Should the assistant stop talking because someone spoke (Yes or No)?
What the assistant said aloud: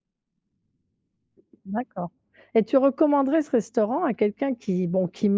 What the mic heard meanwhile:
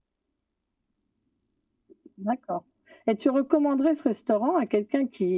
No